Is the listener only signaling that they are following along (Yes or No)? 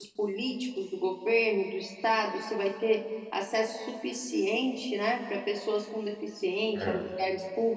Yes